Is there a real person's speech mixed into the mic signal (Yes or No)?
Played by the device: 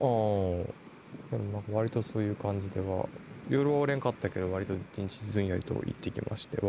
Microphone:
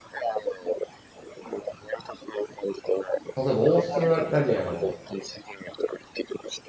Yes